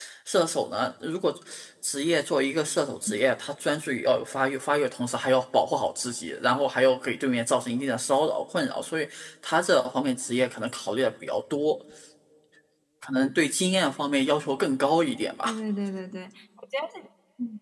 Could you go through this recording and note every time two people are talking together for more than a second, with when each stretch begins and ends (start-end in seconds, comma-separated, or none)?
none